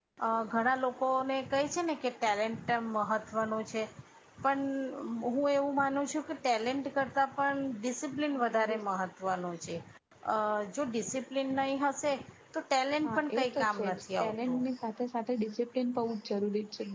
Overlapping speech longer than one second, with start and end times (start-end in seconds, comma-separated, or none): 13.0-14.6